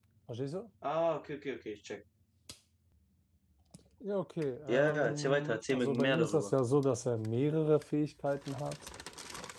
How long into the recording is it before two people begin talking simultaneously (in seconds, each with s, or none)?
4.7 s